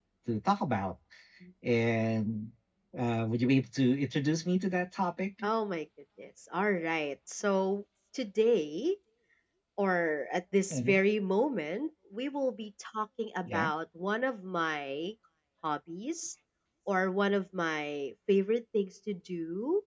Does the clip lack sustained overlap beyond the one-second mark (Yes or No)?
Yes